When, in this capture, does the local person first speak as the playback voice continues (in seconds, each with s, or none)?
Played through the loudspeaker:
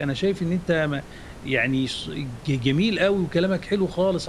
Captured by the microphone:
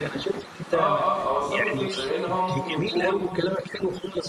0.7 s